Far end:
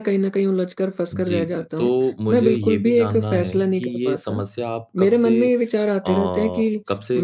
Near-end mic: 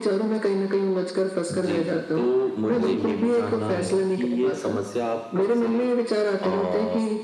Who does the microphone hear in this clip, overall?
both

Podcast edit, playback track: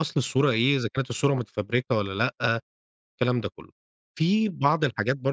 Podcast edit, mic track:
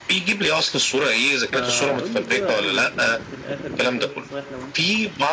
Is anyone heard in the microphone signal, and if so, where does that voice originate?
both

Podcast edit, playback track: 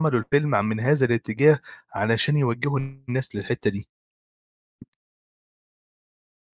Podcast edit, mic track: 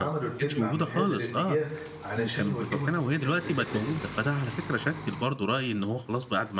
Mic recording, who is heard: both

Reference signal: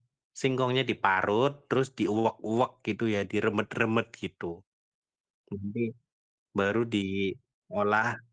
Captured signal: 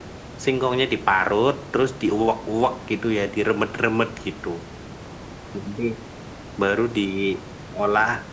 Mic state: echo only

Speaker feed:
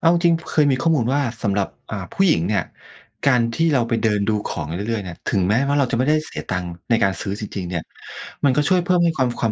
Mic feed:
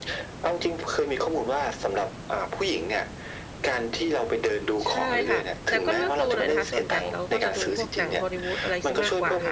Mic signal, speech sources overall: both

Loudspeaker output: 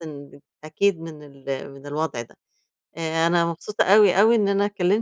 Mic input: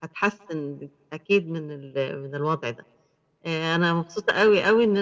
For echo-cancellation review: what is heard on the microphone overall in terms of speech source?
echo only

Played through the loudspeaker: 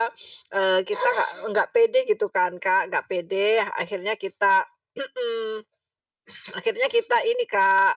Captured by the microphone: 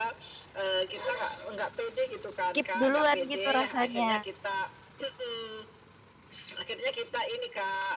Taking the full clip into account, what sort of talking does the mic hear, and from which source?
both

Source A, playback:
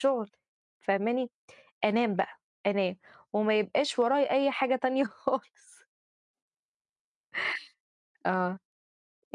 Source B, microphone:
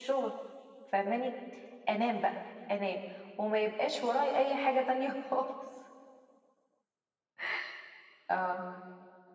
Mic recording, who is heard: echo only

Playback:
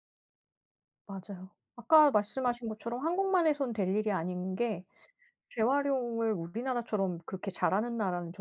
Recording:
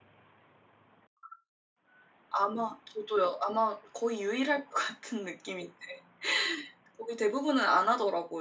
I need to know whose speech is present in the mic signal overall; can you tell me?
user only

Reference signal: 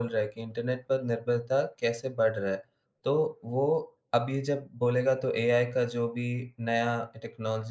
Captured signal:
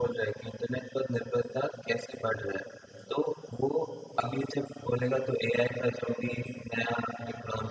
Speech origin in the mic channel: echo only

